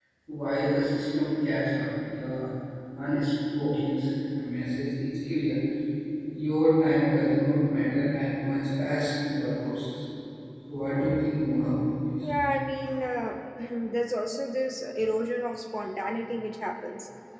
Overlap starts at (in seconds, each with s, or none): none